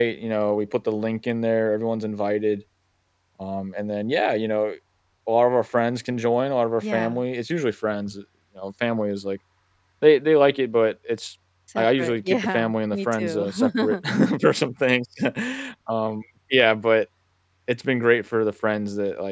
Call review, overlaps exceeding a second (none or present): present